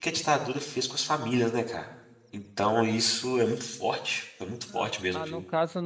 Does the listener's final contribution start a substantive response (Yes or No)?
Yes